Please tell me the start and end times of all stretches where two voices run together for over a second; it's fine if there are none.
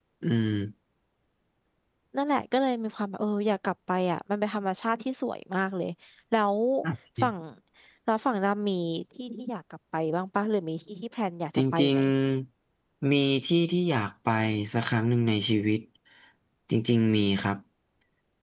none

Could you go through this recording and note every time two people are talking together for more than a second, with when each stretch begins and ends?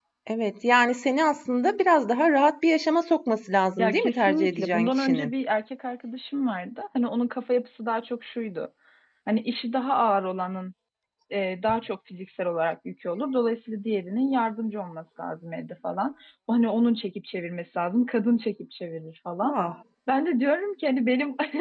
3.8-5.3

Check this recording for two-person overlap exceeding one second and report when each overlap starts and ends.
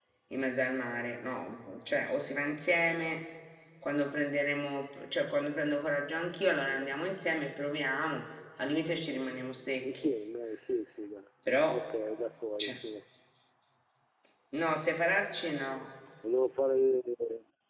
none

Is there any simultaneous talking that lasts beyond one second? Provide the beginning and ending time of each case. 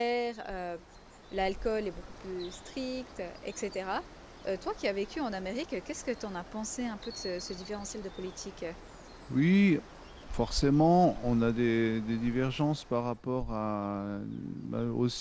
none

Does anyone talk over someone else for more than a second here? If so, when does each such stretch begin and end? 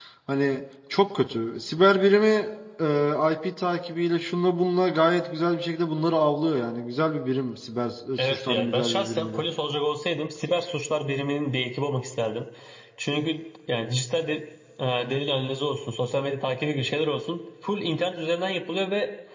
8.2-9.4

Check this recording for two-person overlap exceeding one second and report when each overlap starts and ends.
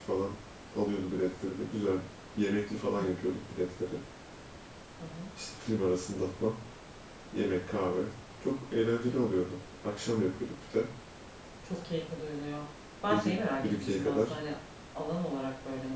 13.1-14.4

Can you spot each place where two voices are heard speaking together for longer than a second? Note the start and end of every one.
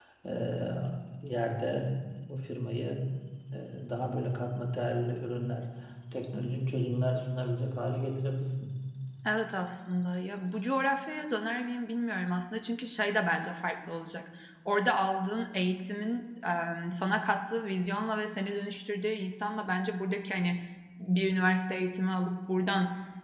none

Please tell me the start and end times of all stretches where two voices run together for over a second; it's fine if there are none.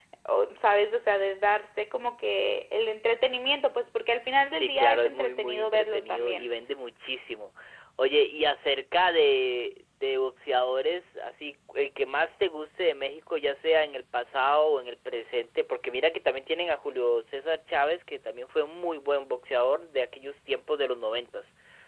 4.5-6.5

